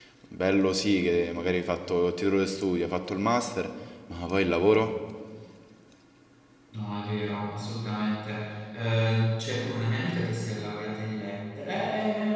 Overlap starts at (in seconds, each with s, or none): none